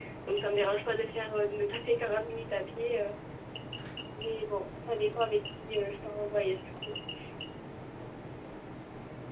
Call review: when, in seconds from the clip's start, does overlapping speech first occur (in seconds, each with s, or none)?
none